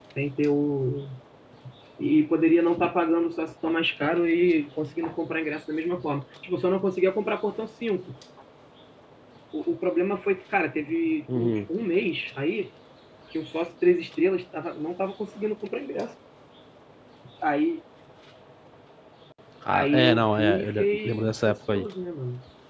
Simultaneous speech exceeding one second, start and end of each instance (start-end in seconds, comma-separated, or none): 19.7-21.9